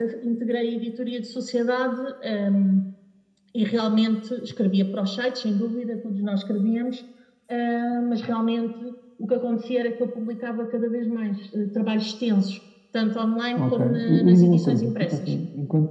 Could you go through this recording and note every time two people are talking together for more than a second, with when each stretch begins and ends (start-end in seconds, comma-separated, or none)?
13.6-15.4